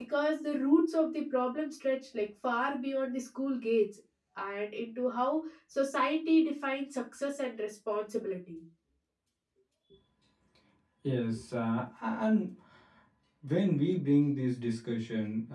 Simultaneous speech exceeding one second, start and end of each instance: none

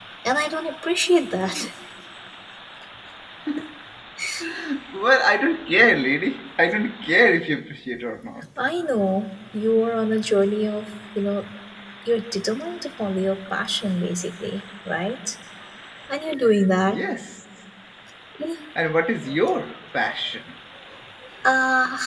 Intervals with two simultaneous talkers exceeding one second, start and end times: none

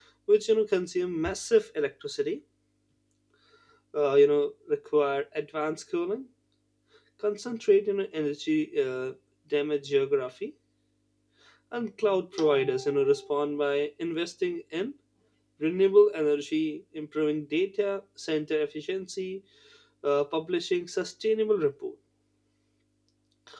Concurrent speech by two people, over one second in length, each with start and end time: none

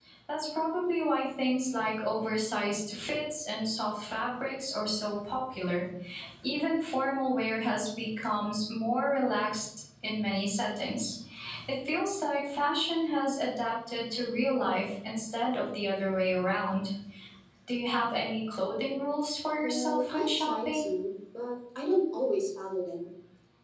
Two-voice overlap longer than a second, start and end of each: 19.6-20.9

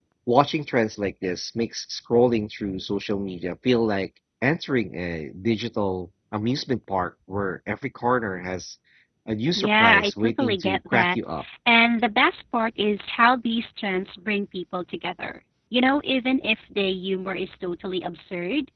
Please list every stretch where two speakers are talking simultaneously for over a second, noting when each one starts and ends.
9.5-11.2

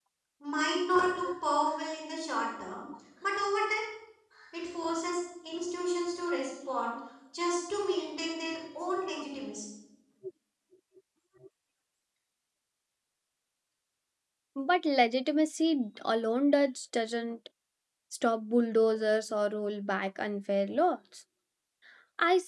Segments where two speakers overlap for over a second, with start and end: none

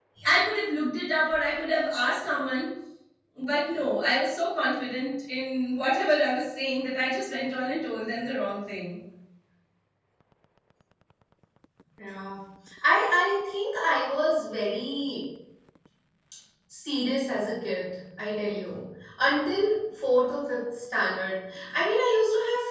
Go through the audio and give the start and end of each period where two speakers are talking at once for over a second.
none

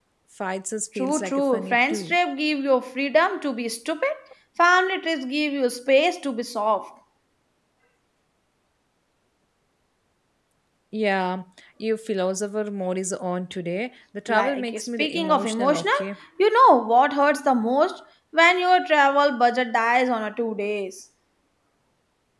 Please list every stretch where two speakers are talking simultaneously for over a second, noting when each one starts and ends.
0.9-2.2, 14.3-16.0

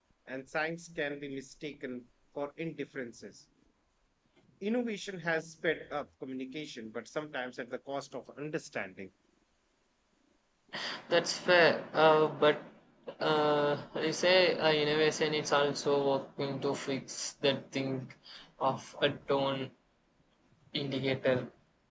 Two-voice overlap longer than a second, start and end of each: none

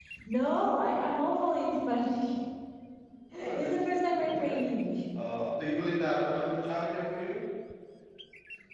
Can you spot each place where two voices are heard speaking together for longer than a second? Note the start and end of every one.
3.3-4.6

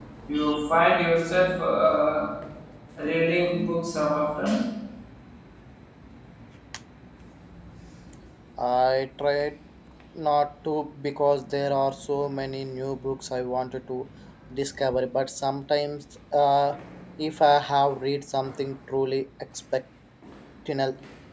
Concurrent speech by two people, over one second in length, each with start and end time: none

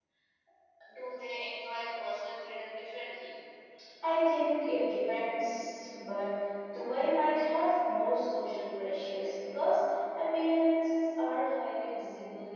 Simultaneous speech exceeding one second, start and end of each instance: none

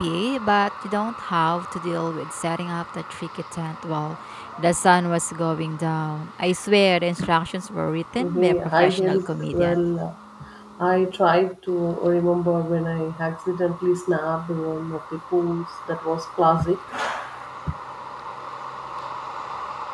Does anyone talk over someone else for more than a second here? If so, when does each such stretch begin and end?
8.2-9.8

